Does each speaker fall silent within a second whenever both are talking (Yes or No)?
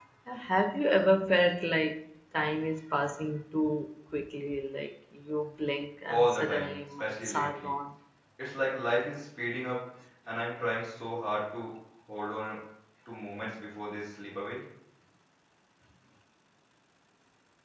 No